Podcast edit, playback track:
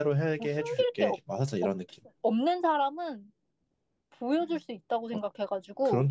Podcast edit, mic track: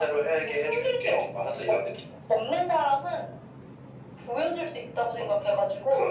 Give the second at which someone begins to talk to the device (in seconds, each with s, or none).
none